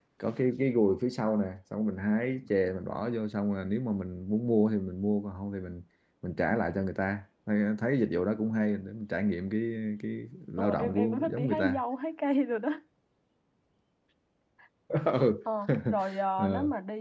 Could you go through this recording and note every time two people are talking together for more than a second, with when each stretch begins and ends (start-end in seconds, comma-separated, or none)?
10.6-11.8